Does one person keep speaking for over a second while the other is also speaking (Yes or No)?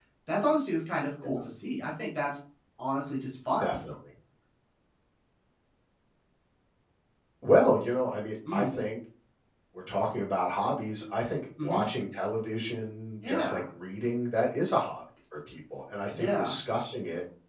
No